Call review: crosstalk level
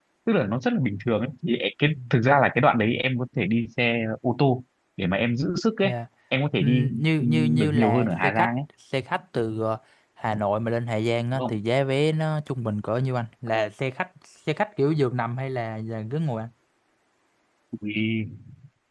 present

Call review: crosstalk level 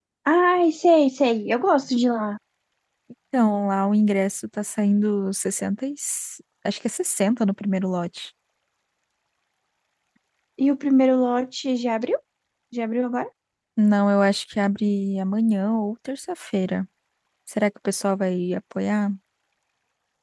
none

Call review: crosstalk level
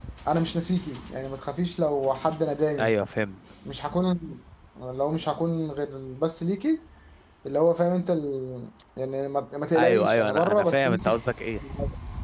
present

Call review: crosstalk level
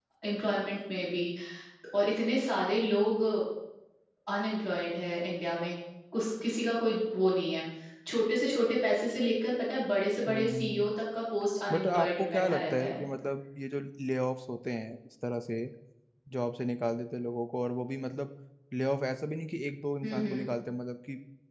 present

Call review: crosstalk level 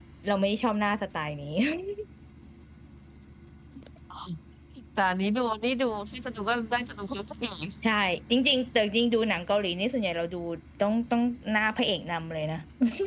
none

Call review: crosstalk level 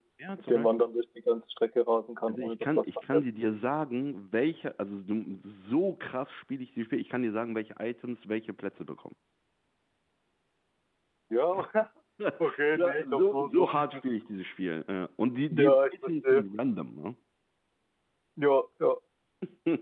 present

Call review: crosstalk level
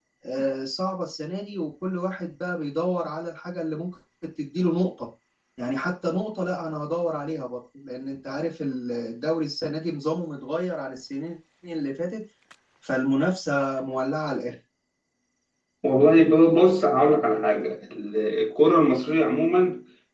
none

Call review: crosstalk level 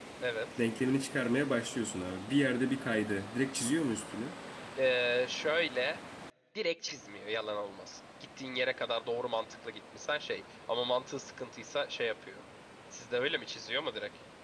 none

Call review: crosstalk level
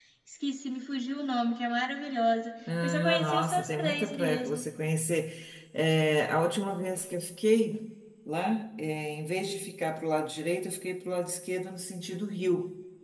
present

